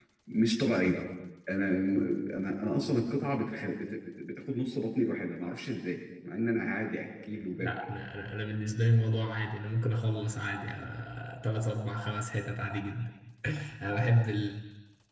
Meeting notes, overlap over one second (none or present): none